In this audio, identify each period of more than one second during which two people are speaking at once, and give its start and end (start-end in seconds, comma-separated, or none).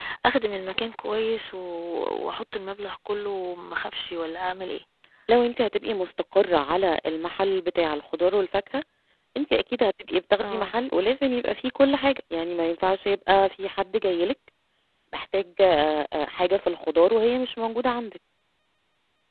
none